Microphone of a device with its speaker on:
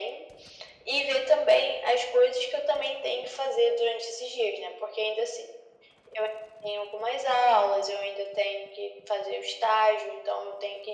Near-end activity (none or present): none